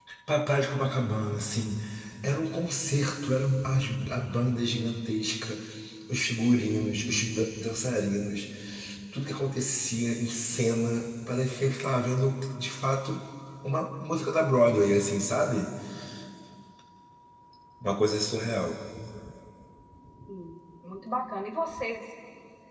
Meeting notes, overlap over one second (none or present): none